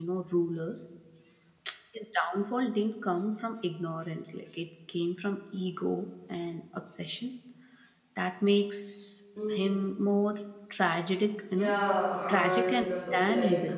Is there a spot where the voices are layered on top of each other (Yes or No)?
Yes